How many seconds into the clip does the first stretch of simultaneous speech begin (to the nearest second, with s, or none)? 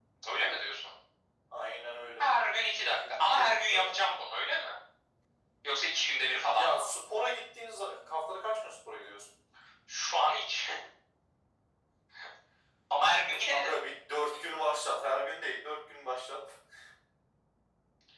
3 s